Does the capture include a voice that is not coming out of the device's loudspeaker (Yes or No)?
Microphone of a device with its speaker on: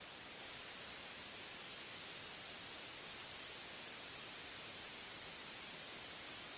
No